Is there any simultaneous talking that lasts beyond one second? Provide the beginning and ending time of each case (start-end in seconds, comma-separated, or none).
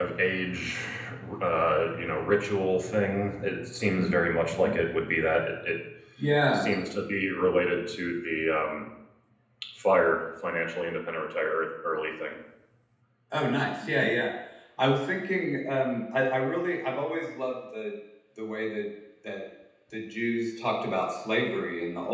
none